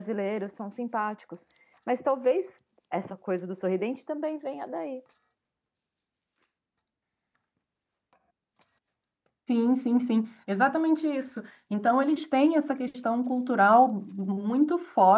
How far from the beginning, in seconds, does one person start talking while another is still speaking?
none

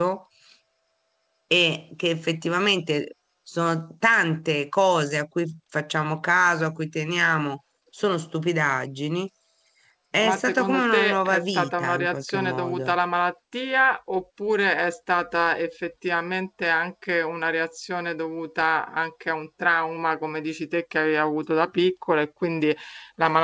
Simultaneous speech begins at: 10.2 s

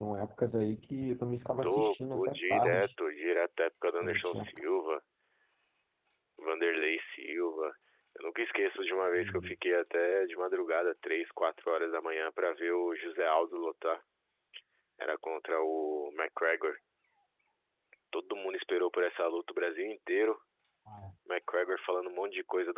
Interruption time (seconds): 1.6 s

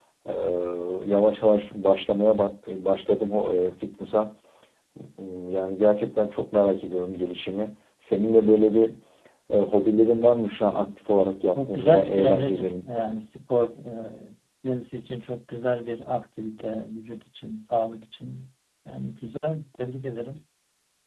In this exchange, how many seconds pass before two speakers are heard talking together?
11.6 s

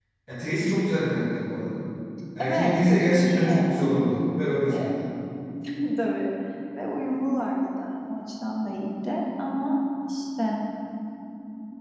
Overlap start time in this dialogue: 2.4 s

